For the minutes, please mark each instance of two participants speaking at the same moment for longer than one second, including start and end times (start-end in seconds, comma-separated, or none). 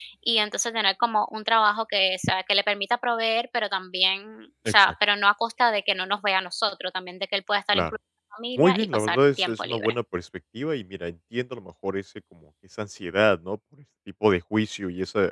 8.6-9.9